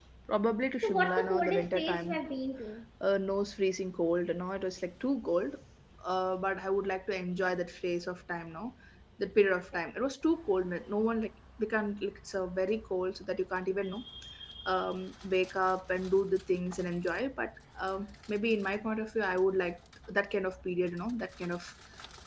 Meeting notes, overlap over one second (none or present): present